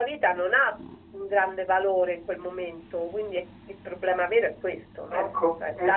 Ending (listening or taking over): taking over